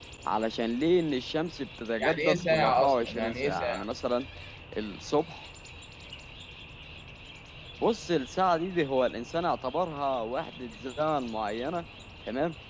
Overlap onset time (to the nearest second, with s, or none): 2 s